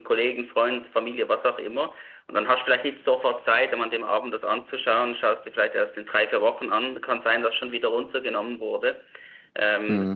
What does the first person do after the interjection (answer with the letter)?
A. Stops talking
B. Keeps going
B